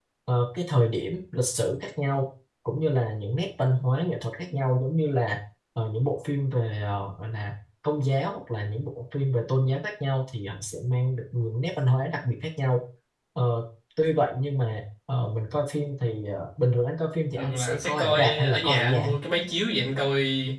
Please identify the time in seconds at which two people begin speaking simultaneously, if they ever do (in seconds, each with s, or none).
17.4 s